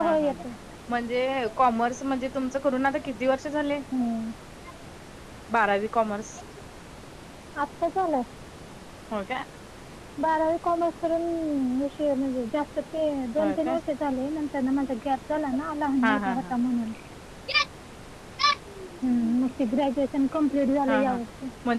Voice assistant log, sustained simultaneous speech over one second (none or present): none